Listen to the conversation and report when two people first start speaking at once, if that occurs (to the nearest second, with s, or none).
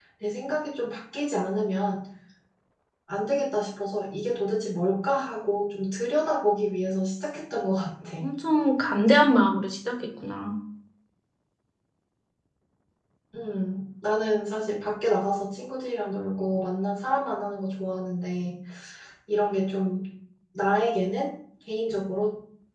none